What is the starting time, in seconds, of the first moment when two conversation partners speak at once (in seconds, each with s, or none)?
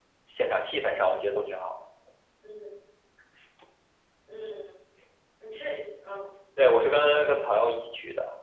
none